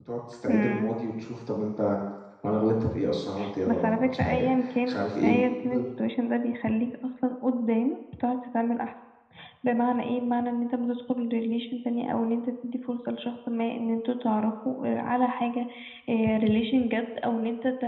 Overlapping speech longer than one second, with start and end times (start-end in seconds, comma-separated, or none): 3.7-5.8